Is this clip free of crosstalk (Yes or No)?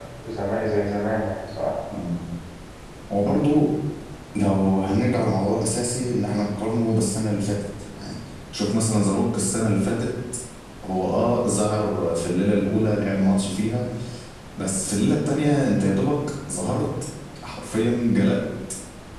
Yes